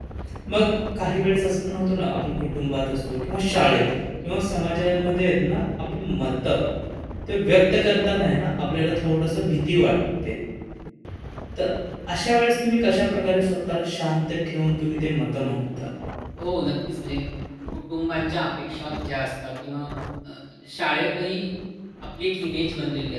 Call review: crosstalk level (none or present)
none